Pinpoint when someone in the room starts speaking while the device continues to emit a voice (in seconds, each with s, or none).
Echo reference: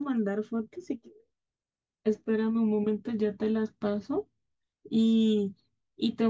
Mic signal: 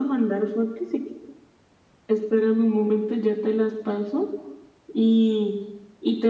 none